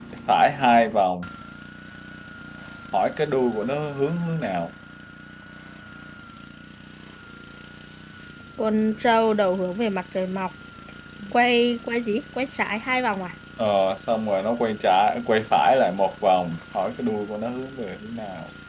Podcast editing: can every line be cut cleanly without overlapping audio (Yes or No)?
Yes